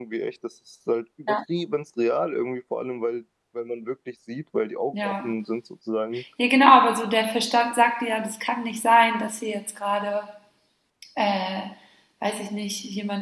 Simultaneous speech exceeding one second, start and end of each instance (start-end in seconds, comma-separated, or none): none